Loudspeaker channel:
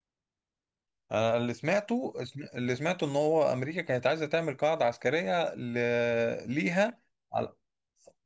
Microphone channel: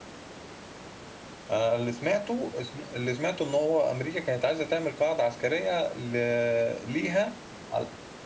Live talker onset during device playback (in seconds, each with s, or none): none